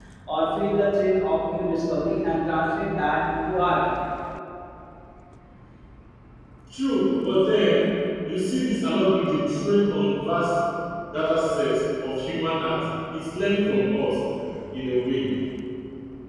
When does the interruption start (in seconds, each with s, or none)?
none